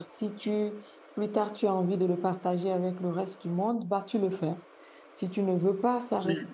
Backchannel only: Yes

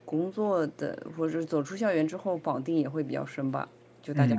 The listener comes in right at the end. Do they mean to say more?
Yes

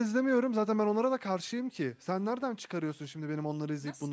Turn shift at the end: Yes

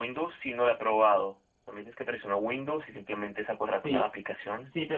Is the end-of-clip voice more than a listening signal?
Yes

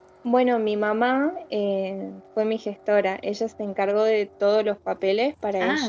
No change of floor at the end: Yes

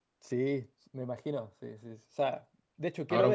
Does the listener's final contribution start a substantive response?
Yes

